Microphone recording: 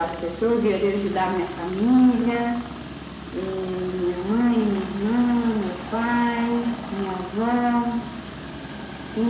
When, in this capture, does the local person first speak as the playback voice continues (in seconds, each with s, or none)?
none